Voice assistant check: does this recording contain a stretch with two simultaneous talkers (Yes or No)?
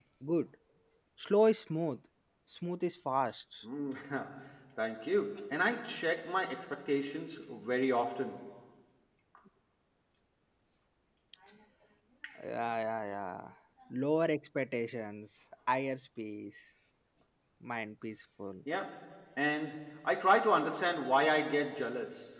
No